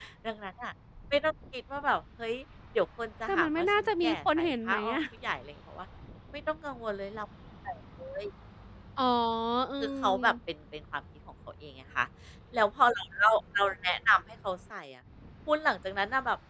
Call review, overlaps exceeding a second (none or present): present